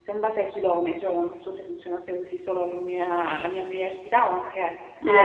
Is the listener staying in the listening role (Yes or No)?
No